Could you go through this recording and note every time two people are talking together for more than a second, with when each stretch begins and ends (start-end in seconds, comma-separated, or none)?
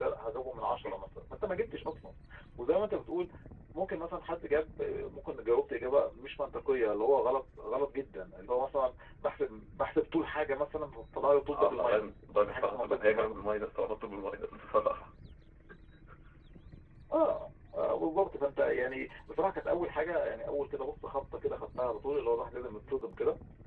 11.5-13.4